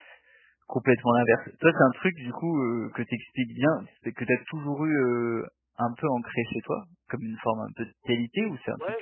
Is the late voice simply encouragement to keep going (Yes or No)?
No